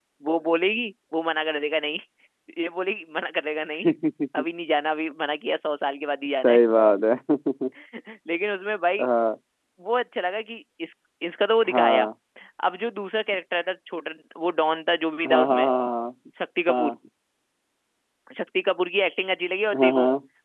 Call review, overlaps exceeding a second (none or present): none